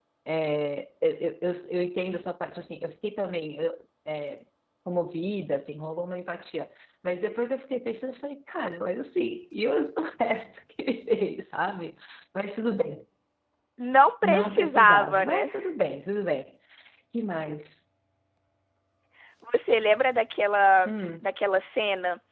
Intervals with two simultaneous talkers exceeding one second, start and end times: 14.2-15.5

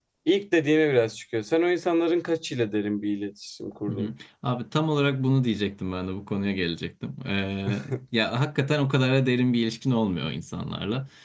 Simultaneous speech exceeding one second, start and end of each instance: none

